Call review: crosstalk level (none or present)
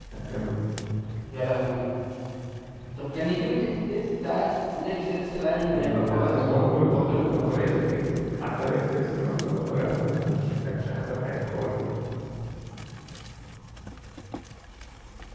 present